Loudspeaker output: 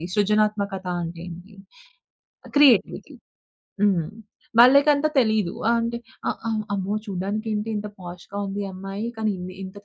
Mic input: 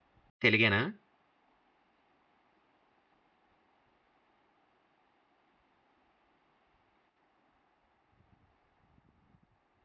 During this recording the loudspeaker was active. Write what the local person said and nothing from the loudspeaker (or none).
తెలుగేనా?